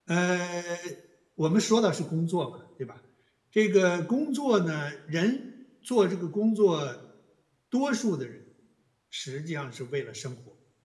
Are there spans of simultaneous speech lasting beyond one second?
No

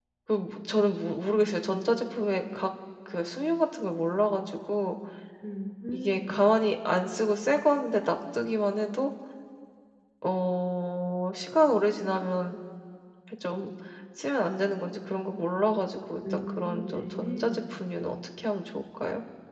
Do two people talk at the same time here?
Yes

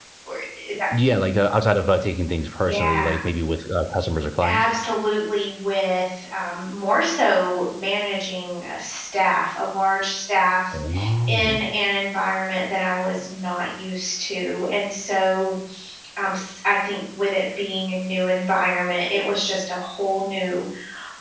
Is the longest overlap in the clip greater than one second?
No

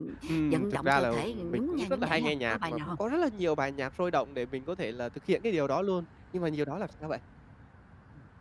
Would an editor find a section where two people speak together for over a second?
Yes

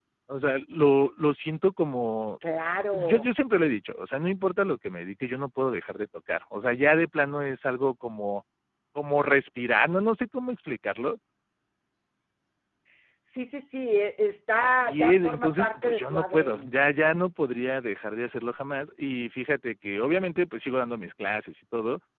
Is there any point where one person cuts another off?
Yes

